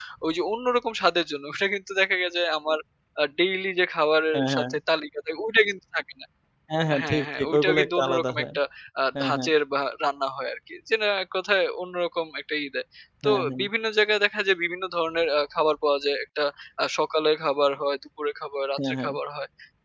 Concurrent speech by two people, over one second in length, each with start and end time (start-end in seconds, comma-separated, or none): 7.0-8.4